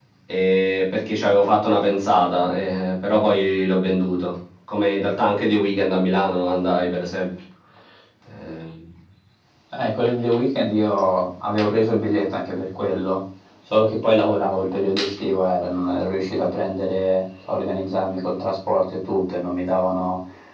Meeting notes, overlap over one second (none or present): none